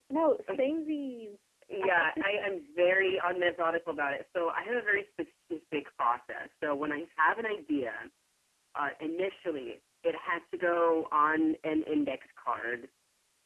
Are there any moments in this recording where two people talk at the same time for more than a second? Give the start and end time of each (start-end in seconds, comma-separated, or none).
none